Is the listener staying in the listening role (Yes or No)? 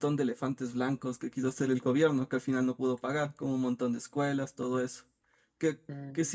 Yes